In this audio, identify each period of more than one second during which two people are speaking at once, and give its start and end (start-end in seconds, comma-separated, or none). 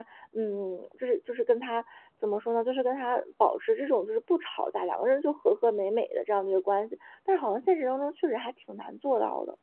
none